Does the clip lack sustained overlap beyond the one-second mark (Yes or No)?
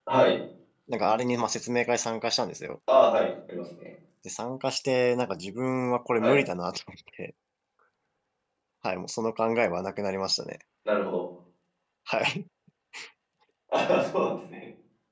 Yes